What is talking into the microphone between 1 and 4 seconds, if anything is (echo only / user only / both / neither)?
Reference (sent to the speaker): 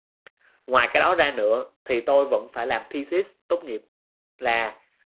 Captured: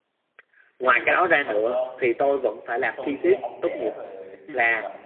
both